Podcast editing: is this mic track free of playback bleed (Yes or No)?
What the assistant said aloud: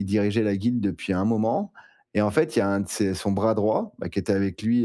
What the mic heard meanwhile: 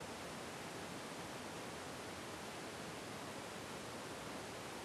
Yes